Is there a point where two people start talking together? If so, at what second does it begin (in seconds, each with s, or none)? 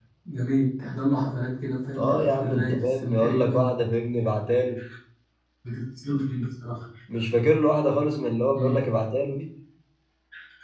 2.0 s